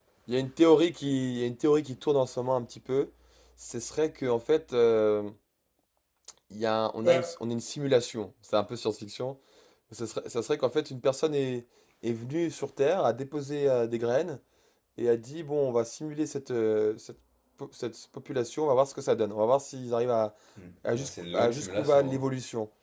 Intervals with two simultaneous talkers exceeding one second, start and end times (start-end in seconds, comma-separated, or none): 20.9-22.2